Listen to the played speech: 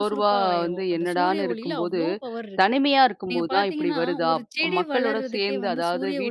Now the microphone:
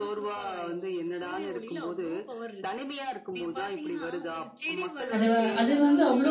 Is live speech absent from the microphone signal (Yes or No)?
No